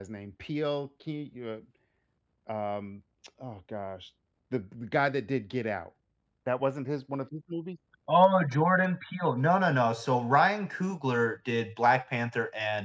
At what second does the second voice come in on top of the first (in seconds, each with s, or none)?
none